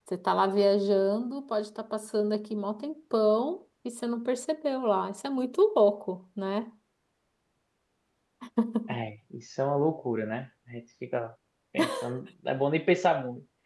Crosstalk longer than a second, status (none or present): none